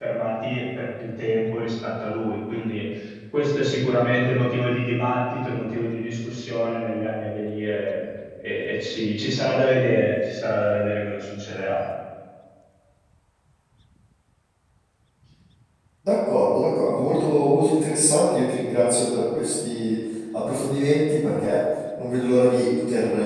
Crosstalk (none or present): none